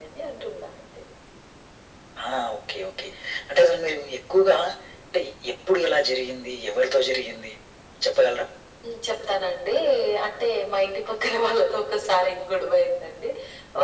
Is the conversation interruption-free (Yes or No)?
Yes